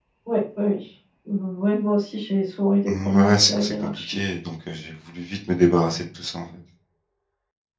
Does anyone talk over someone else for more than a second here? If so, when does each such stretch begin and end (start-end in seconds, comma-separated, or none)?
2.9-4.2